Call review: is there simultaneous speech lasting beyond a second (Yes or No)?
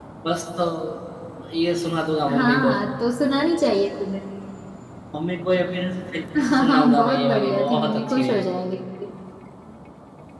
Yes